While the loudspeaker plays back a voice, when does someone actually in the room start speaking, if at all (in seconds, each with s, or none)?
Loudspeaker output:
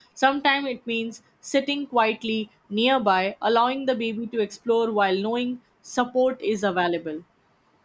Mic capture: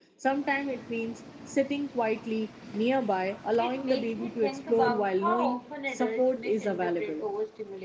3.6 s